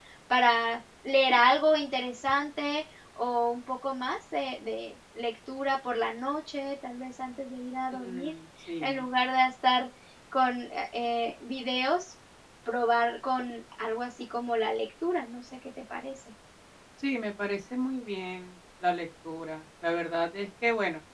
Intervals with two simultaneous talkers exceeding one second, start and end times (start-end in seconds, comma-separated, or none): none